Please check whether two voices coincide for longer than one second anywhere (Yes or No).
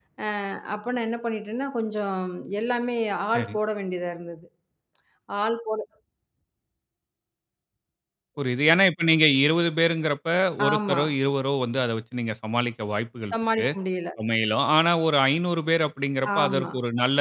No